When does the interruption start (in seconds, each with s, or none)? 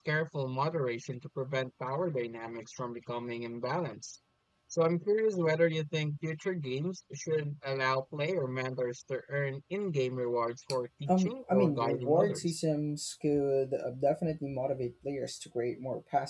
11.1 s